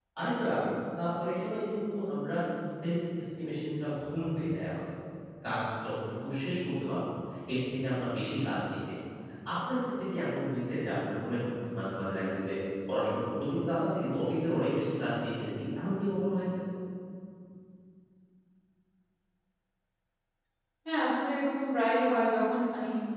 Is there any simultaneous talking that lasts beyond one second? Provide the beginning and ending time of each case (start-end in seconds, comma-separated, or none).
none